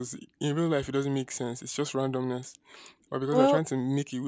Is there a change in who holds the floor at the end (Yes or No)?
No